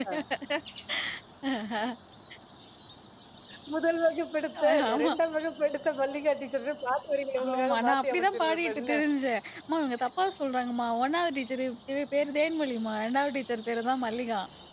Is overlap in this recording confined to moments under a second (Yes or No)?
No